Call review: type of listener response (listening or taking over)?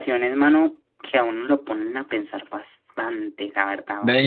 taking over